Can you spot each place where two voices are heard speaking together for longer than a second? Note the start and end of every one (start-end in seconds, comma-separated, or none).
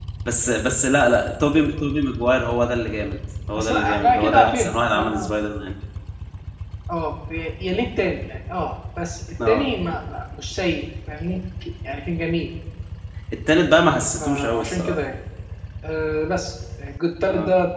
3.6-5.3, 13.8-15.1